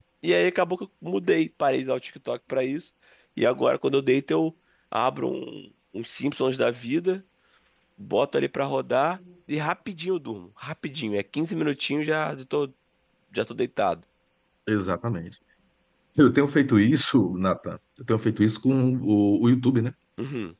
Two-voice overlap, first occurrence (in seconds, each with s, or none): none